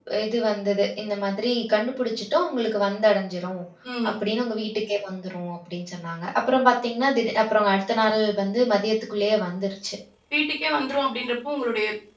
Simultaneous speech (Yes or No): No